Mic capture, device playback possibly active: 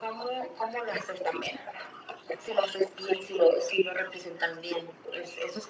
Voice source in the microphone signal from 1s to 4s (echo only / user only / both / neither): echo only